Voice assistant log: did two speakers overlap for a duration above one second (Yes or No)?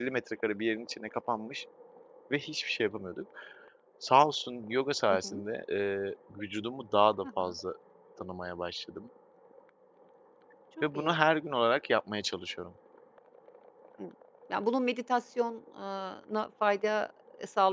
No